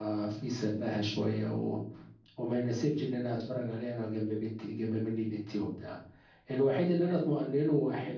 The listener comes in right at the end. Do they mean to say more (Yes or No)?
No